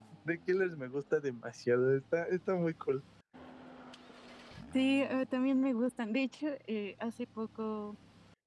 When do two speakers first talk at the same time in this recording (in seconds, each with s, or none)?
none